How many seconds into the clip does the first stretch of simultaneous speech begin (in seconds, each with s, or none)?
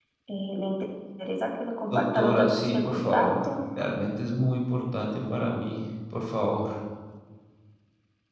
1.9 s